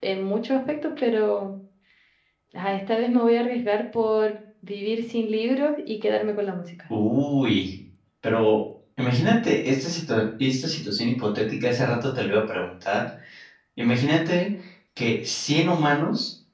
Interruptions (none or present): none